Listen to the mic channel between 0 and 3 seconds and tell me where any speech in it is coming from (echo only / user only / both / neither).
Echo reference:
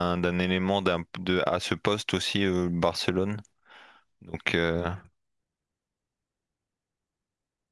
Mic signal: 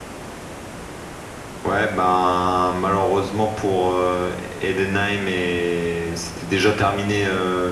user only